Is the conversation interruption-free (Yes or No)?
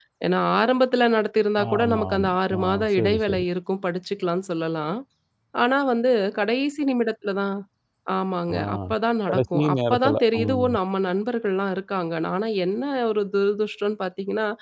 No